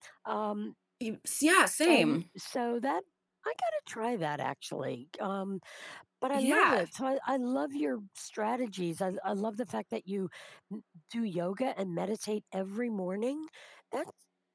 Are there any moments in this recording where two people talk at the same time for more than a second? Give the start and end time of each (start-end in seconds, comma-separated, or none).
none